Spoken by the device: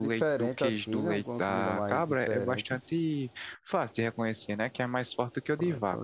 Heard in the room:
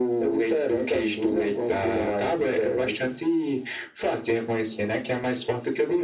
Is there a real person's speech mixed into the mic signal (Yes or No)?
No